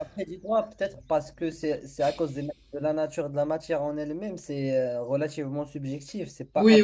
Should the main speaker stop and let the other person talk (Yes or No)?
Yes